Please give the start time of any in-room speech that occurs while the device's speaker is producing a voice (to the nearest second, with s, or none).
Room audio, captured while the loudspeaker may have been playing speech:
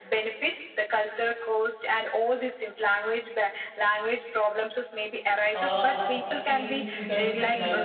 6 s